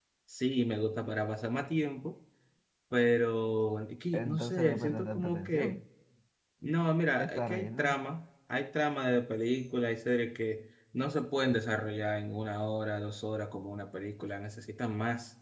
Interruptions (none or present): present